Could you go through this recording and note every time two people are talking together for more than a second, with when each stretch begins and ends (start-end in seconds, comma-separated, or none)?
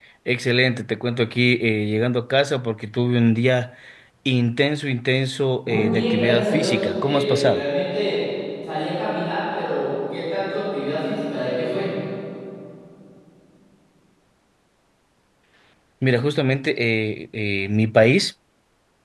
5.6-7.6